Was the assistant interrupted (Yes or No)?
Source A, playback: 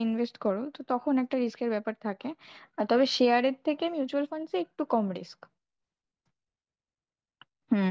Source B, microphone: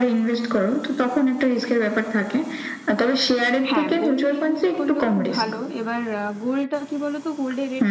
Yes